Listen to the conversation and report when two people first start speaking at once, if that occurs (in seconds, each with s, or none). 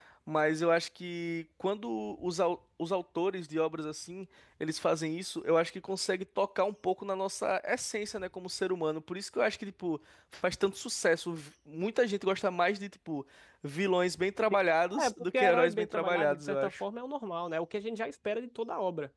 14.9 s